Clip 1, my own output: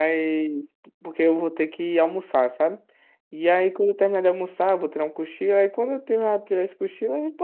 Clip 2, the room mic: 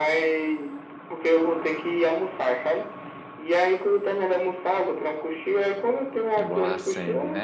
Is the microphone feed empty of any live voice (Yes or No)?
No